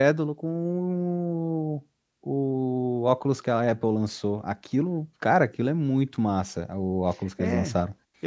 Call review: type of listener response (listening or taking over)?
taking over